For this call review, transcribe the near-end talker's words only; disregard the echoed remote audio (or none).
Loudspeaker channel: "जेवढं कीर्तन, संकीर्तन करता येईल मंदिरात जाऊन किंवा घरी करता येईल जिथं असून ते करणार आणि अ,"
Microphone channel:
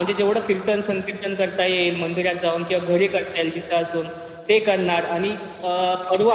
none